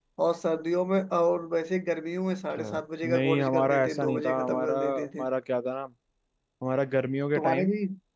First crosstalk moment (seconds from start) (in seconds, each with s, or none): 2.6 s